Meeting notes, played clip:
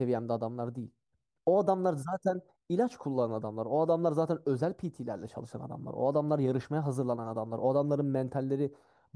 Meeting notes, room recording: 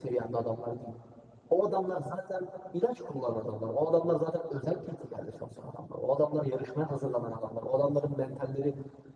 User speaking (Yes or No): No